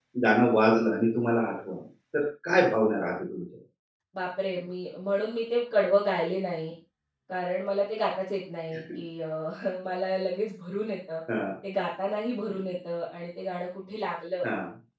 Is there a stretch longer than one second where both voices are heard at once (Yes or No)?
No